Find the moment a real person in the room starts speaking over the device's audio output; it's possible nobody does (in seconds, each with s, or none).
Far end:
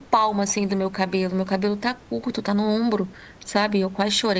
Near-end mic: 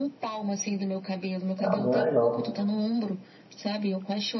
1.6 s